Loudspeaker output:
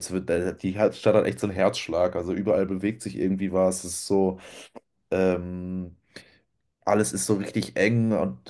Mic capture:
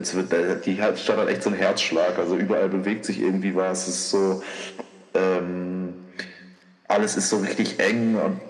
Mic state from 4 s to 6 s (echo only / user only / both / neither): echo only